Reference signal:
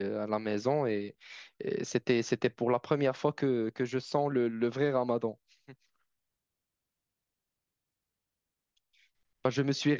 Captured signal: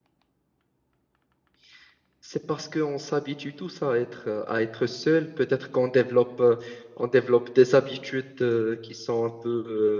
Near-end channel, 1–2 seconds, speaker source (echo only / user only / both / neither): neither